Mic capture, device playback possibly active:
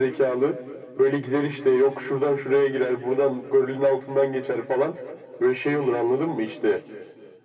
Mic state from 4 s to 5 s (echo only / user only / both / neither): echo only